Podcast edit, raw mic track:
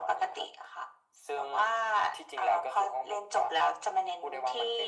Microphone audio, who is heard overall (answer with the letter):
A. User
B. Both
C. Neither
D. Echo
D